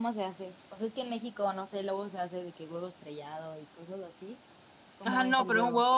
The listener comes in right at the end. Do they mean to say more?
Yes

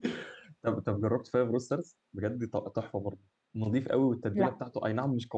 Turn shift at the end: No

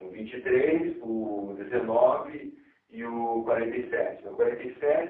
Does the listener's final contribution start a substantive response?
Yes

